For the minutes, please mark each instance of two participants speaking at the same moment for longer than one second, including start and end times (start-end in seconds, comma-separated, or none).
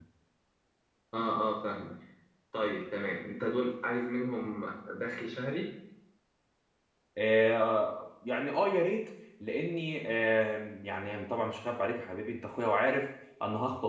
none